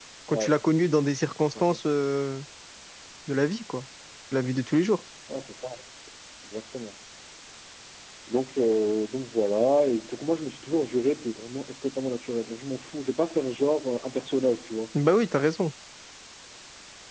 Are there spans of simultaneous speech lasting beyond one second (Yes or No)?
No